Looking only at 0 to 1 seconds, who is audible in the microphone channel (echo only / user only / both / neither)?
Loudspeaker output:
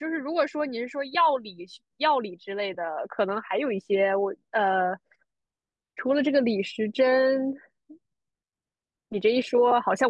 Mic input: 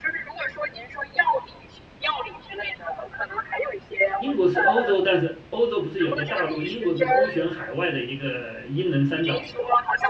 echo only